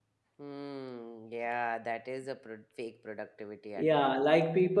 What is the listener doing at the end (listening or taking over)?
taking over